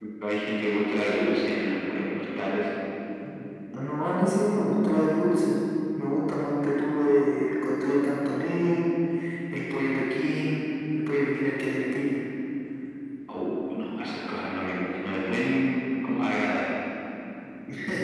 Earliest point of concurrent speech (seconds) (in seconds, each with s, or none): none